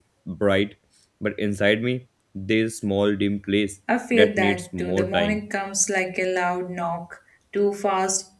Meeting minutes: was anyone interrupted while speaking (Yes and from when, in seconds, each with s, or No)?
Yes, from 4.1 s